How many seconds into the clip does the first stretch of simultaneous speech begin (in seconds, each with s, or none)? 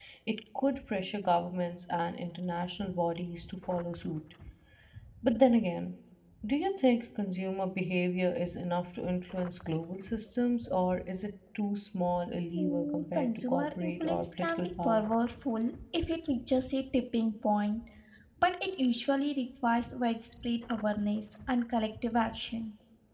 12.5 s